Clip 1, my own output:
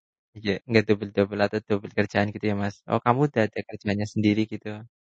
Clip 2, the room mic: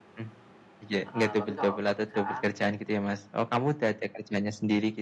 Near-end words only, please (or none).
Heeh, tapi kalau untuk kerjaan